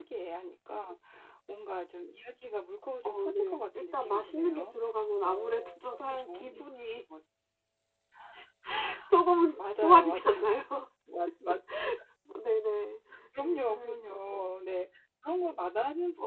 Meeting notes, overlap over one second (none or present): present